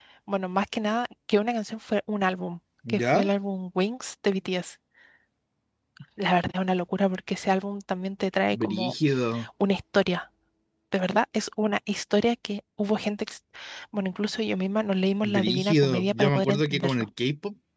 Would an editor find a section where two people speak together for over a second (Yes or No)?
Yes